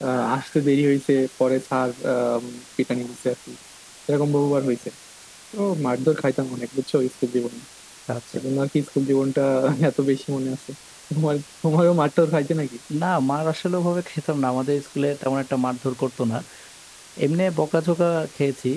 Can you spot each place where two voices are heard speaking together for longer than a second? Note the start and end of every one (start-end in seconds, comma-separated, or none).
none